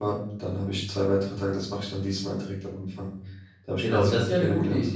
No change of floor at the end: No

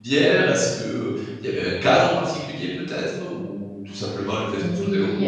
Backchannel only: No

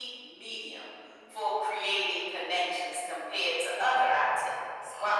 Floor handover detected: No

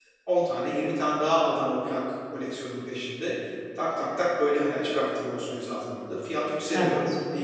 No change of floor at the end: Yes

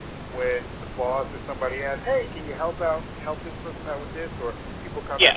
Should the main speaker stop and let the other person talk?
No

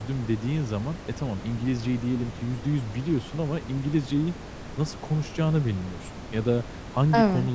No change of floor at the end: Yes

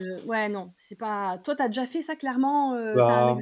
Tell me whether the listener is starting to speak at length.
Yes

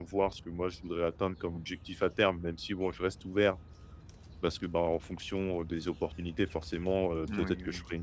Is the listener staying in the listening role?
Yes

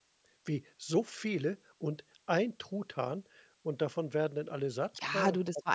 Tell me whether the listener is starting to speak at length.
Yes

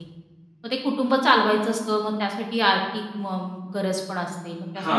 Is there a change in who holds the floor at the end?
Yes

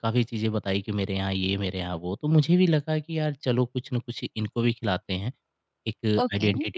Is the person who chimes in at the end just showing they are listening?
Yes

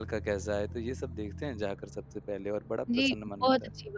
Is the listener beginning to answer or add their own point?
Yes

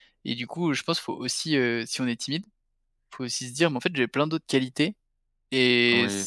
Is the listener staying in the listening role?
Yes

